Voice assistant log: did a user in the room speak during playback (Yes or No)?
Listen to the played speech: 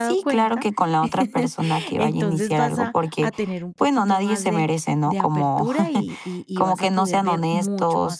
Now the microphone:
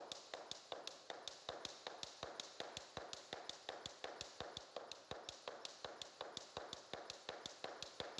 No